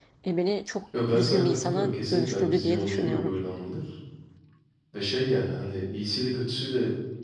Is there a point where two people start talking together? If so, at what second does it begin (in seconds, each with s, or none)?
0.9 s